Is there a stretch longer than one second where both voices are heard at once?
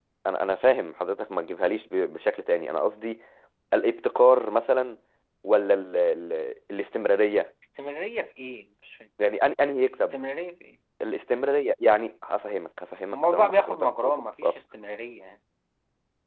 Yes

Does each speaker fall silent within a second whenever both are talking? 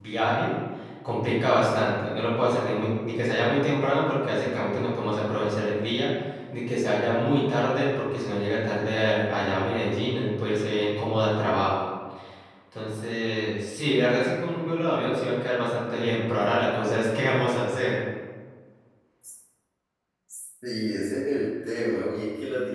Yes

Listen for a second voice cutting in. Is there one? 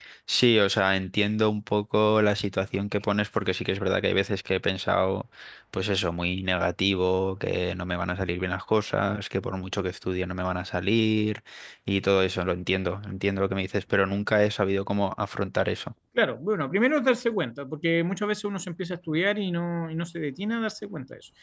No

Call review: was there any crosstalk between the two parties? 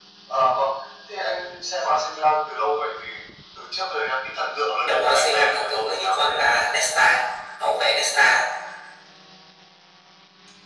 Yes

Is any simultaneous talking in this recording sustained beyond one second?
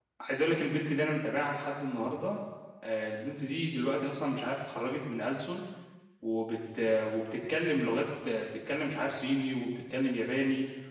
No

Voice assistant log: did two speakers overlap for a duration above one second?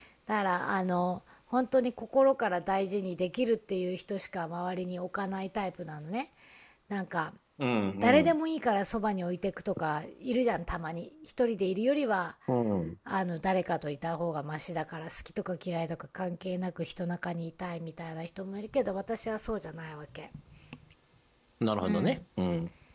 No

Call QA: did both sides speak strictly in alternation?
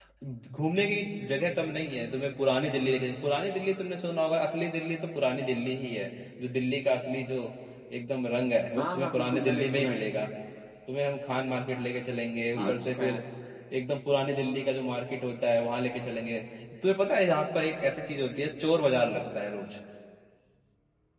No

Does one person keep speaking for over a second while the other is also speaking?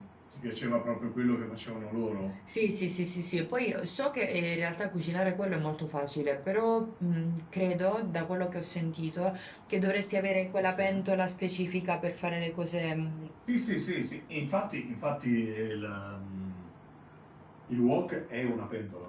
No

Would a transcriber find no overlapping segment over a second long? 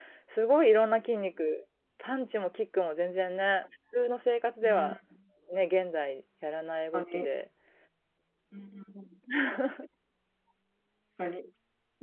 Yes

